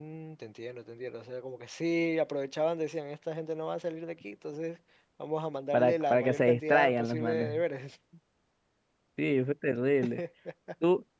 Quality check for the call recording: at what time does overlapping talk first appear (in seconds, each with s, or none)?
5.7 s